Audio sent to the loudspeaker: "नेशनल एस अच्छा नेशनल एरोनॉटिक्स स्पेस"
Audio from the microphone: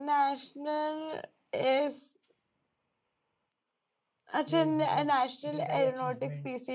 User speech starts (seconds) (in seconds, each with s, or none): 4.5 s